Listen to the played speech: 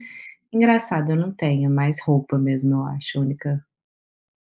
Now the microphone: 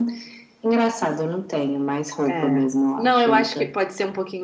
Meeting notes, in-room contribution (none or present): present